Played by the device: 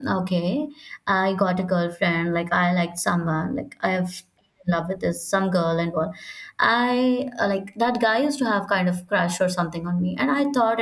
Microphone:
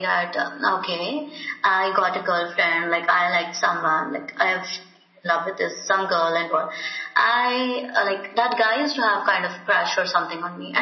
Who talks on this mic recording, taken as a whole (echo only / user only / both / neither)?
echo only